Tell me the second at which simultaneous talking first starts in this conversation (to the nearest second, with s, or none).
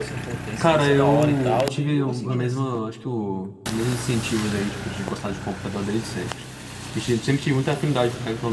1 s